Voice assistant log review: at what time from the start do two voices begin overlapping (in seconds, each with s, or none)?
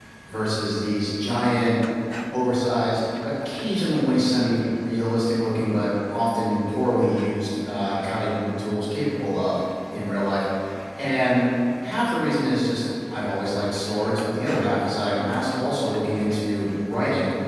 none